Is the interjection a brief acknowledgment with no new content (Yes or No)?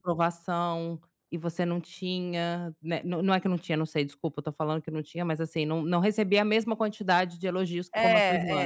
No